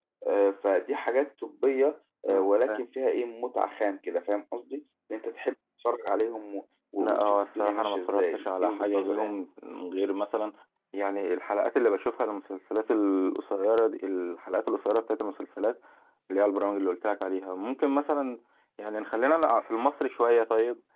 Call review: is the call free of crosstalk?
No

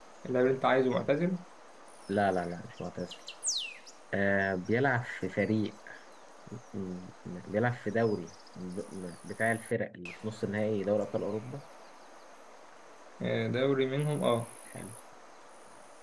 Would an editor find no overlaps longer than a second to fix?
Yes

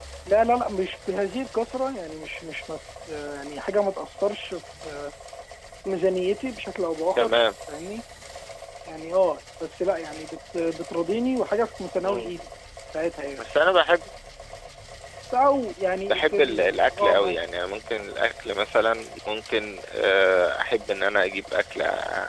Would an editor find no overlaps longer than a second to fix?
No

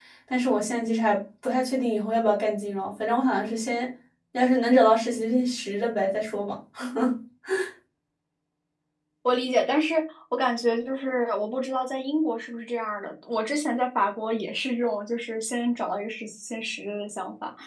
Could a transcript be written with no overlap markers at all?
Yes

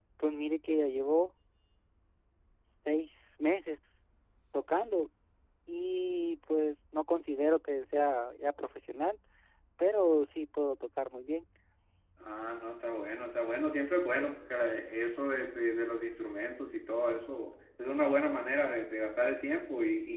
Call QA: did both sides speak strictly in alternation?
Yes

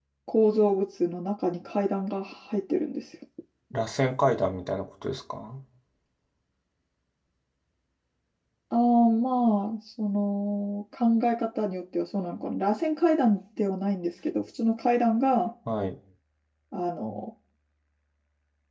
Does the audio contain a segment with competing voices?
No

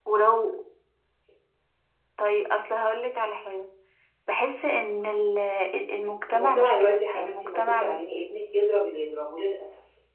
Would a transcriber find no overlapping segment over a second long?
No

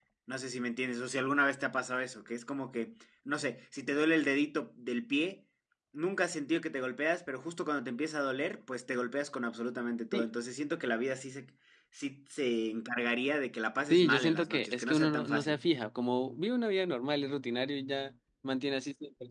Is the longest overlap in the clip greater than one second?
Yes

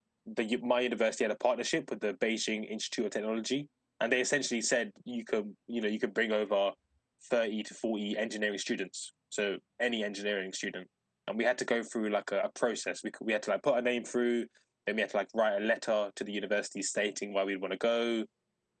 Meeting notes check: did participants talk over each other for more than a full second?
No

